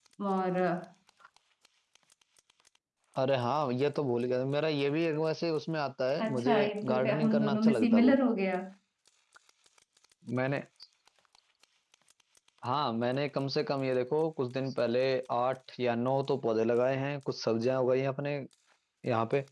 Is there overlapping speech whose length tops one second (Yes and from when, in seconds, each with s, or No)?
Yes, from 6.2 s